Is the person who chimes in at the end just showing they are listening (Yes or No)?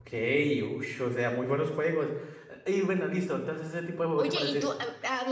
No